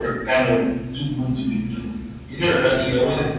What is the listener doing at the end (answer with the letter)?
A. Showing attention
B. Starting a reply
A